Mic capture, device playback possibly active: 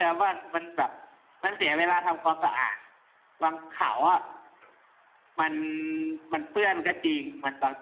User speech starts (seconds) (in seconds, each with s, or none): none